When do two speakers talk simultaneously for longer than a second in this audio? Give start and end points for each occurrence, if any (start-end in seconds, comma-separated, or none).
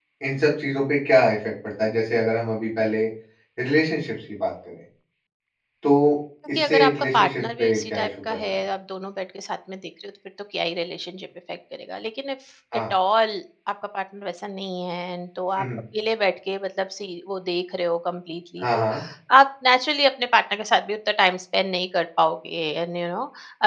6.5-8.6